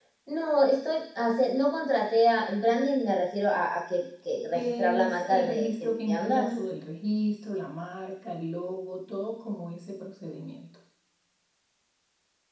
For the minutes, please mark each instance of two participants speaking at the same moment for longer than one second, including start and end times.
4.5-6.6

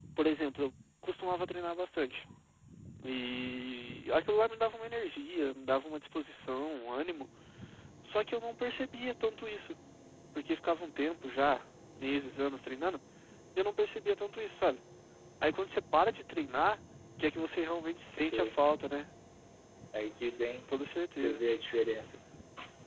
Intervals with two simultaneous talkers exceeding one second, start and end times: none

